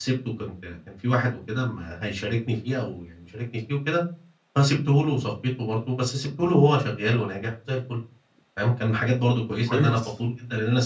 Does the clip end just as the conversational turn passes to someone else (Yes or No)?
No